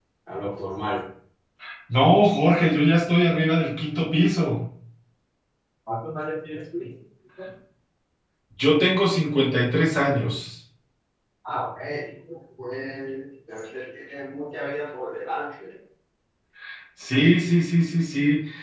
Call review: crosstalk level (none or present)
none